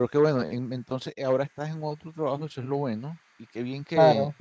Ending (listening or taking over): taking over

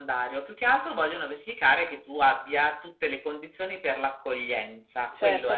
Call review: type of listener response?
taking over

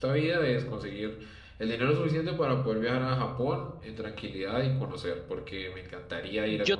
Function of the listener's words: taking over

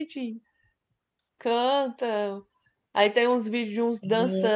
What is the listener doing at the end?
listening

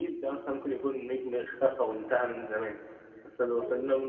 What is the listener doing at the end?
listening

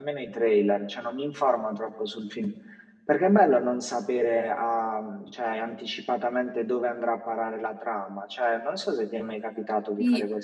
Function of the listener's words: taking over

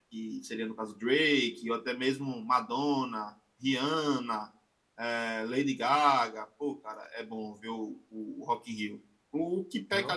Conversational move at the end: listening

